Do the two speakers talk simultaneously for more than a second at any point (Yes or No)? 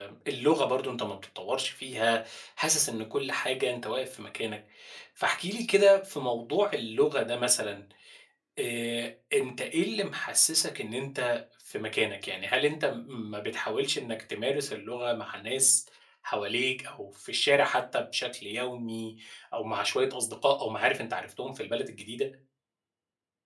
No